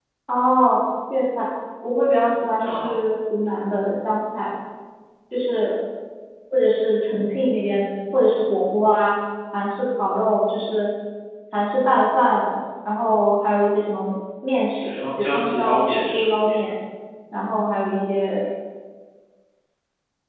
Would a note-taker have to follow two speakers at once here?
Yes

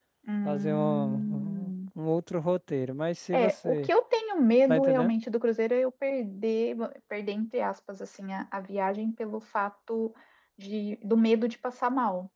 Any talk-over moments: Yes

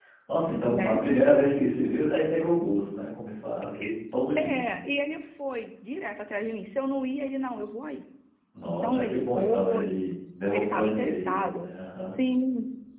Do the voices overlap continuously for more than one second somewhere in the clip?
Yes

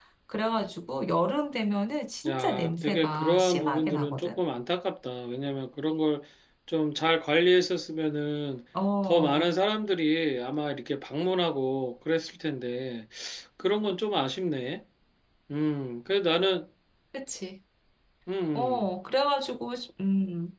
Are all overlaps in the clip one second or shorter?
No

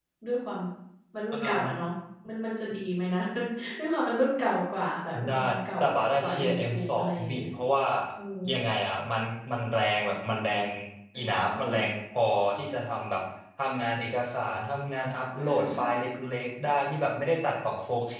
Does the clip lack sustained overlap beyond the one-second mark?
No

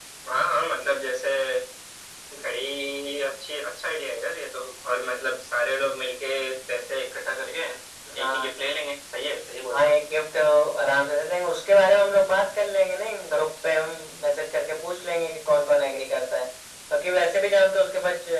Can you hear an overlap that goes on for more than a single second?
No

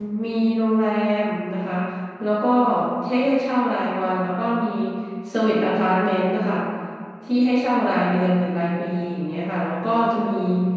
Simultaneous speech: No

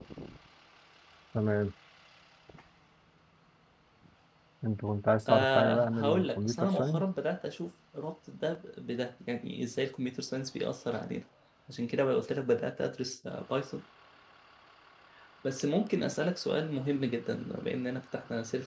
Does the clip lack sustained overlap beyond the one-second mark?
No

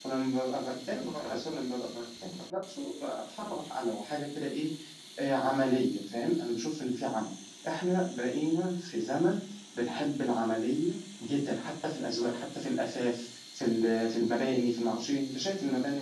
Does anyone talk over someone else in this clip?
No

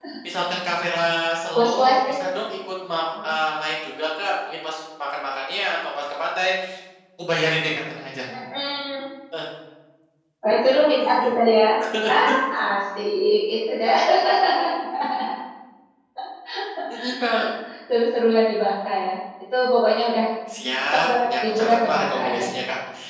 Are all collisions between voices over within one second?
No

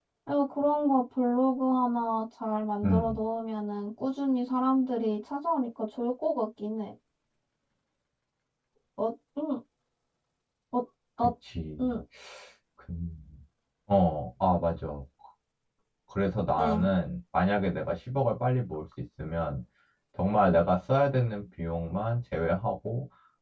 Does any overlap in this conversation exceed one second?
No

